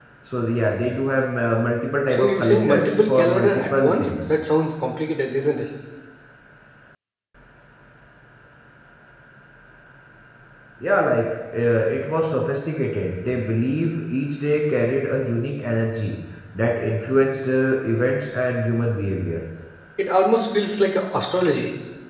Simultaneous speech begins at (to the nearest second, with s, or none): 2 s